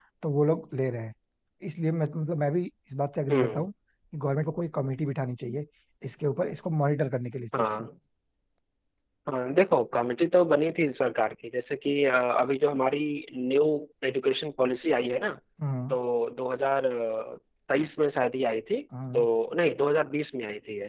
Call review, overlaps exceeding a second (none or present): none